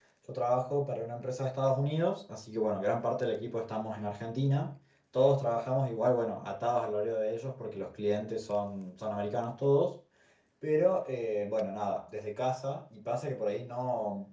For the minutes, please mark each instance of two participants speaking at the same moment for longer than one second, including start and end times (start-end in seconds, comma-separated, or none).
none